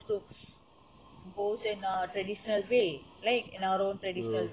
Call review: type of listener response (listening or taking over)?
listening